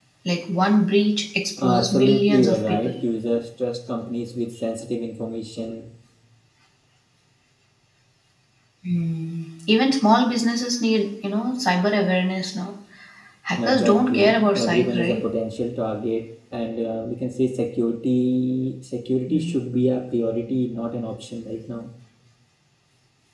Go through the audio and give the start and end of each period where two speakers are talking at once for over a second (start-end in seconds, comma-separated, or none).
1.6-3.0, 13.6-15.2